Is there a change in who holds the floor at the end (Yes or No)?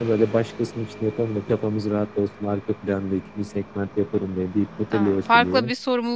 Yes